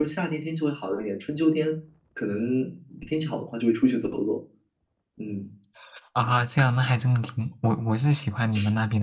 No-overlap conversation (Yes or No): Yes